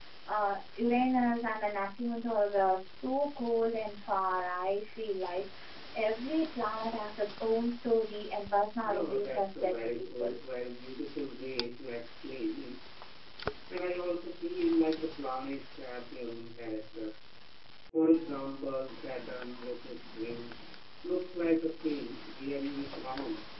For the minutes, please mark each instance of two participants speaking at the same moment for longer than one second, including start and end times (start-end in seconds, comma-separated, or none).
8.8-10.3